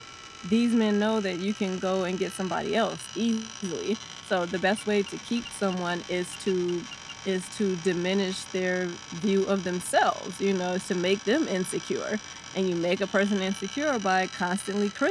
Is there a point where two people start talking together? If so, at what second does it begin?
none

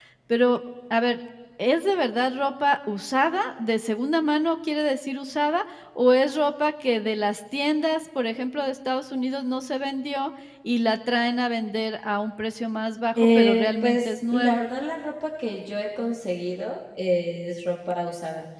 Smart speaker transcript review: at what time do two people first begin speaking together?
13.2 s

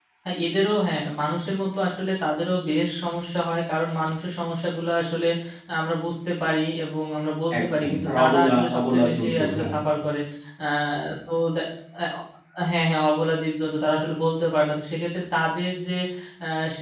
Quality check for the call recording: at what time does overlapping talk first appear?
7.5 s

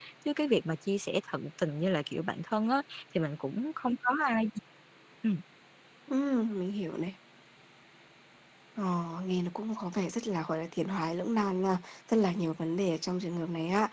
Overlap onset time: none

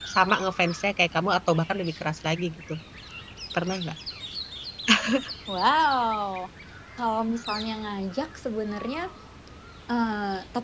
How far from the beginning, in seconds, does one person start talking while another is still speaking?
none

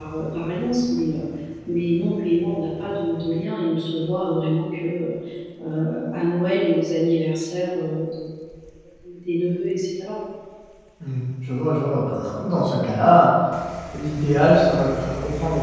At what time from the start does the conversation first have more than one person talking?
none

